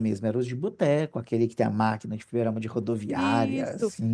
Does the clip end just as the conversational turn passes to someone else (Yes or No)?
Yes